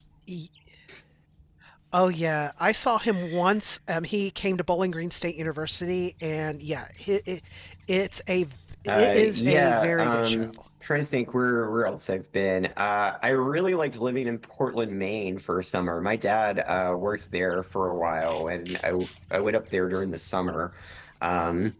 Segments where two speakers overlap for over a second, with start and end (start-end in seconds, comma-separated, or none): 8.9-10.5